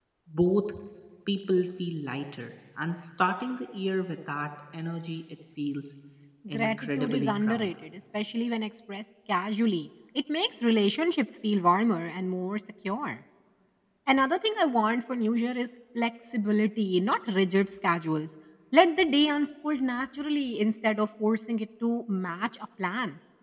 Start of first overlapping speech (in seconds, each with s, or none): 6.5 s